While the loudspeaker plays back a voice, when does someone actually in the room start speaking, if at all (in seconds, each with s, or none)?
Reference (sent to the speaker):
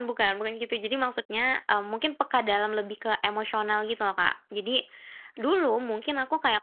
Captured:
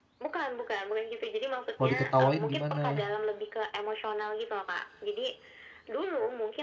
1.8 s